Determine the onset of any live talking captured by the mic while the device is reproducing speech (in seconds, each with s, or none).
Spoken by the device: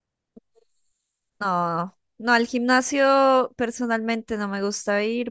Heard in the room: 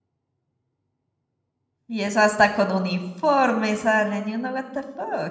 1.9 s